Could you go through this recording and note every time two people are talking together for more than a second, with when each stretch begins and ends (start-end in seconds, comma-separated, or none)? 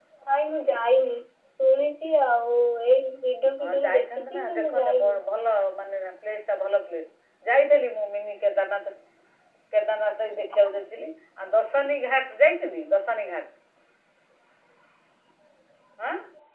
3.6-4.9